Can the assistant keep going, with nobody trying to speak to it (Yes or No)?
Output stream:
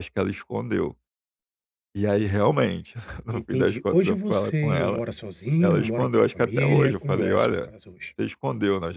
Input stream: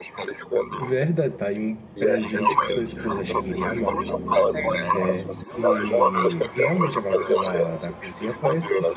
No